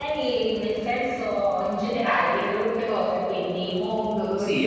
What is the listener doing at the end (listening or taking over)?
taking over